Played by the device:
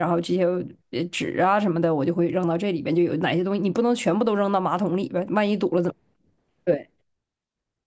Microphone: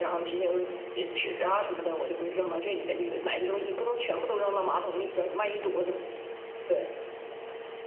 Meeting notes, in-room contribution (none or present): none